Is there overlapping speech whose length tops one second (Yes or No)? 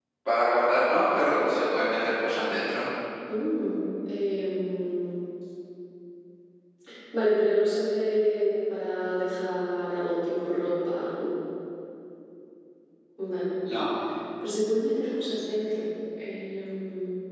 No